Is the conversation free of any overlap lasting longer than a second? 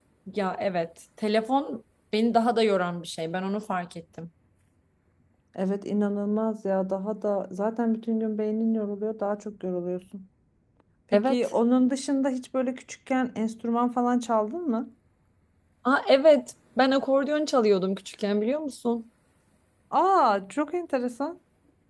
Yes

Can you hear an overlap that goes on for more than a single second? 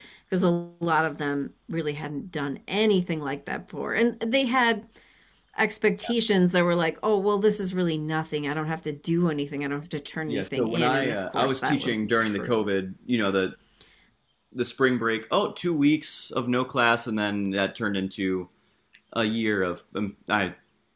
Yes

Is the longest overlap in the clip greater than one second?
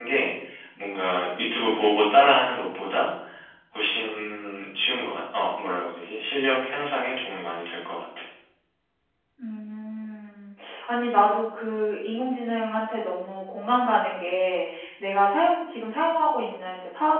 No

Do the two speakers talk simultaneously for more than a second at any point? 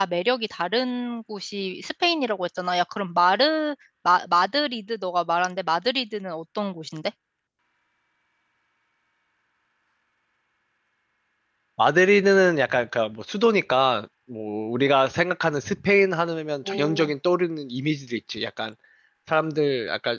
No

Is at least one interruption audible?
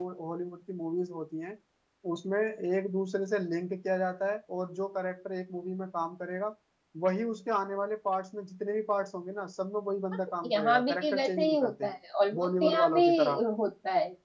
Yes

